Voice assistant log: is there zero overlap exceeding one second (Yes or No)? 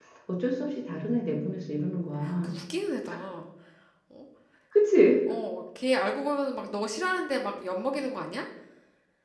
Yes